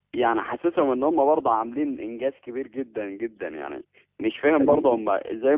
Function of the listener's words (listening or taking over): listening